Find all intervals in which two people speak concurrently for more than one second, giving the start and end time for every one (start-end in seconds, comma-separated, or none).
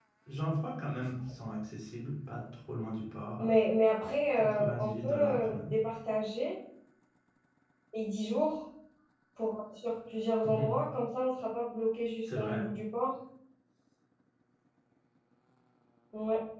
4.3-5.7